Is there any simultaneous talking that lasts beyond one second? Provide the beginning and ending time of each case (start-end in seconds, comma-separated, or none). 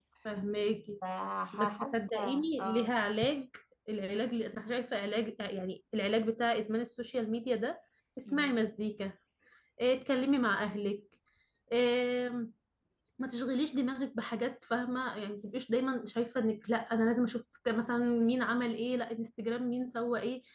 1.5-3.0